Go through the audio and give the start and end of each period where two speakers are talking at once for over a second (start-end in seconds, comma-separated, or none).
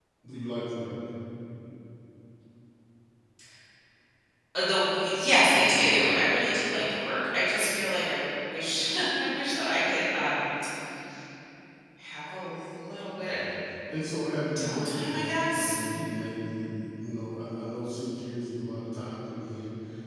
14.6-15.8